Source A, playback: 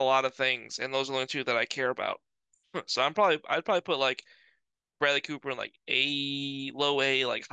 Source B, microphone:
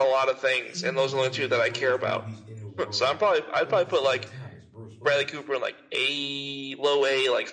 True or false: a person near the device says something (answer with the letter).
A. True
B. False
A